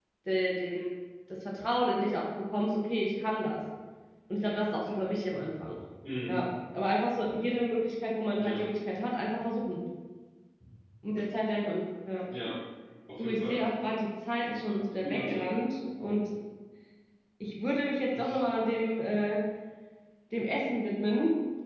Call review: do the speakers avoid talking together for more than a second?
Yes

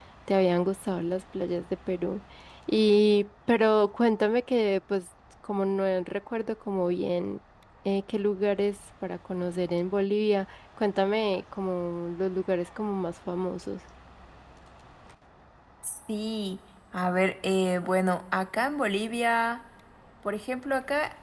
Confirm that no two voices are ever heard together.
Yes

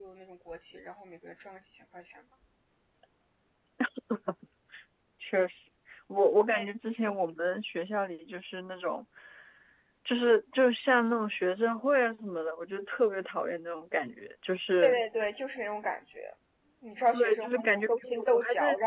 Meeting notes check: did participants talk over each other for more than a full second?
Yes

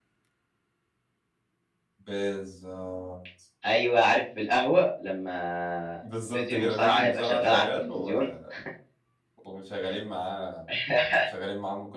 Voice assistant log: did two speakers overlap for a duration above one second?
Yes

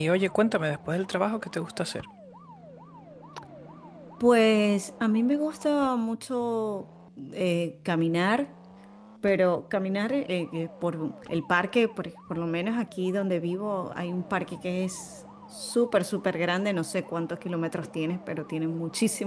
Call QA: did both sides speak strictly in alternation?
Yes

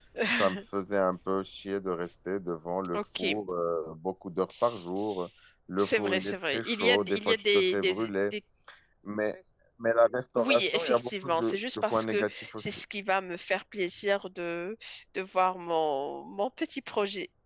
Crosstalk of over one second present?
Yes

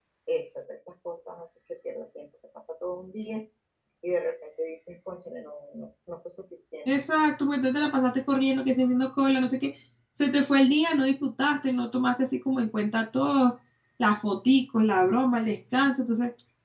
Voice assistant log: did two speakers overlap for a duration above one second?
No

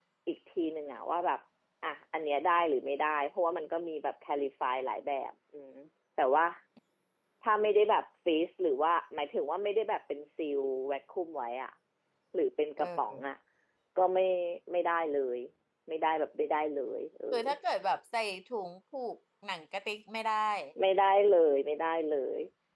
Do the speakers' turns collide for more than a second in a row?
No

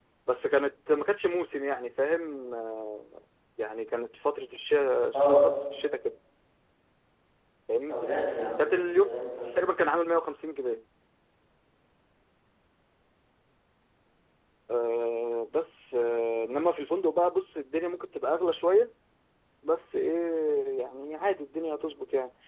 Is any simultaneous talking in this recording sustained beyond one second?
No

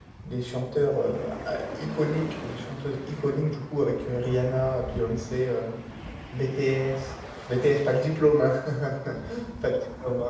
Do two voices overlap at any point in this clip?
No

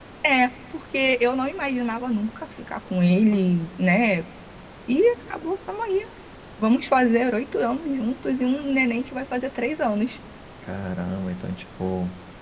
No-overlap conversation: Yes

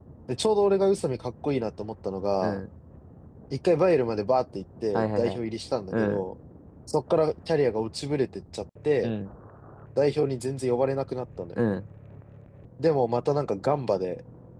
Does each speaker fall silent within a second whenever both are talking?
Yes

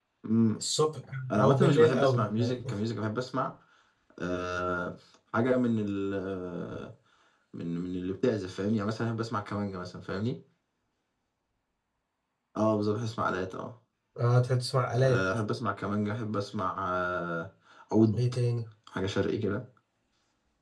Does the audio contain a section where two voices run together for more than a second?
Yes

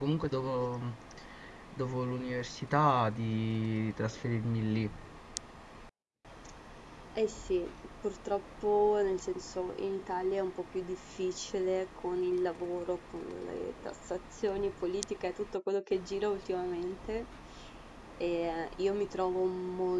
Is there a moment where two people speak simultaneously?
No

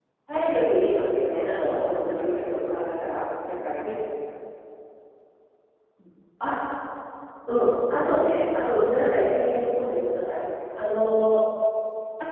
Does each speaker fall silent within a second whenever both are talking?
No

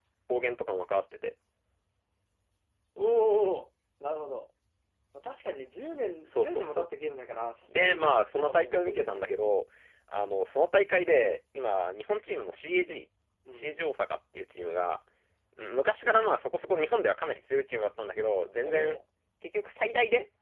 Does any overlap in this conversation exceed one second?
Yes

